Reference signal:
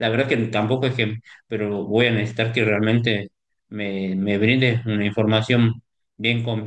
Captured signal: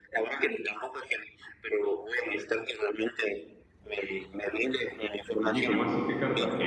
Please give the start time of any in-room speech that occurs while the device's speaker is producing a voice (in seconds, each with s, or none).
5.3 s